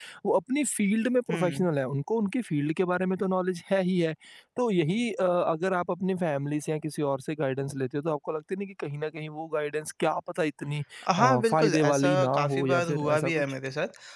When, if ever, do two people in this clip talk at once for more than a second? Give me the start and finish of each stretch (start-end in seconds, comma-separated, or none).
11.2-13.4